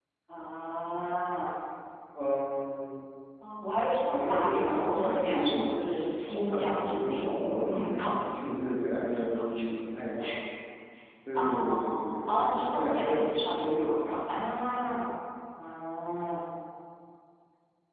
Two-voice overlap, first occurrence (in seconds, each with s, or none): 4.1 s